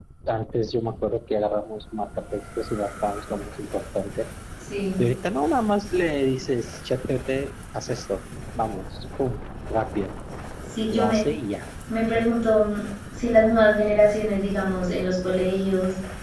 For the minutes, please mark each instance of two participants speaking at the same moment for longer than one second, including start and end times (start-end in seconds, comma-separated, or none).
none